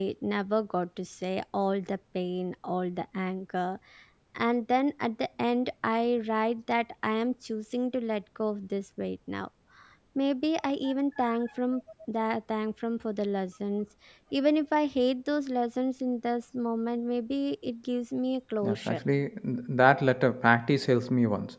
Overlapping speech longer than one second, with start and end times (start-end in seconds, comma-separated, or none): none